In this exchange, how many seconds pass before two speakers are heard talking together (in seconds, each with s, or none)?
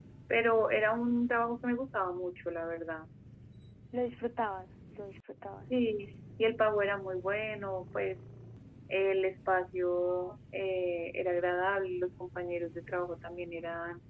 none